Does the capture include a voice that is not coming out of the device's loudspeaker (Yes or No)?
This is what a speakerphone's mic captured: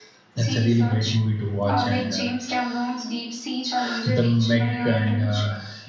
Yes